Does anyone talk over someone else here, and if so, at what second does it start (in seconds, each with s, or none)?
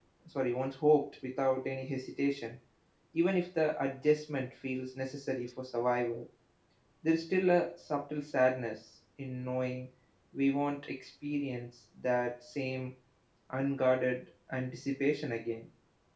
none